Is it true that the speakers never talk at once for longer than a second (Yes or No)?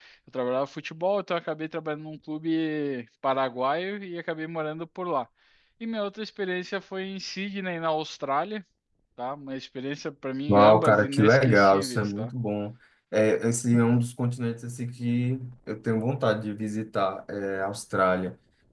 No